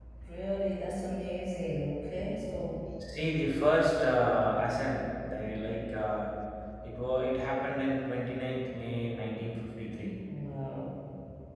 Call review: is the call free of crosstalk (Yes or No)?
Yes